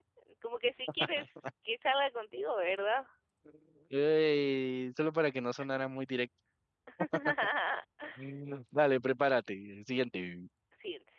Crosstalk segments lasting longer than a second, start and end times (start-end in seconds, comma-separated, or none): none